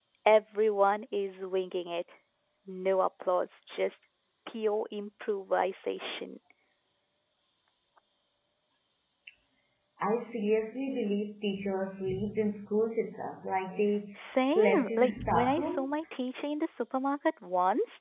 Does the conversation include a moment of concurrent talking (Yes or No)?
Yes